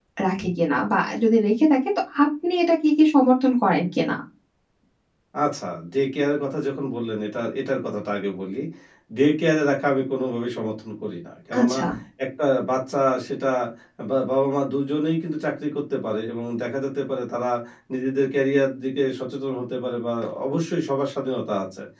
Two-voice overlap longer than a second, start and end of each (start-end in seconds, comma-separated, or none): none